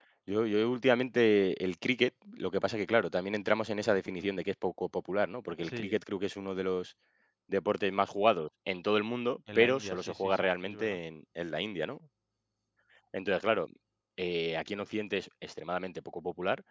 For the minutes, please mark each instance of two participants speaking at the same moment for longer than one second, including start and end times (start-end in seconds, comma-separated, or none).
9.6-11.0